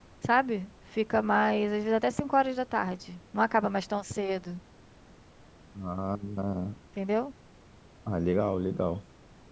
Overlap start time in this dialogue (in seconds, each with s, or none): none